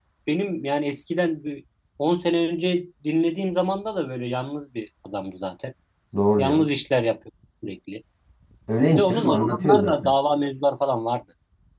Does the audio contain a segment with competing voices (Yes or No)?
Yes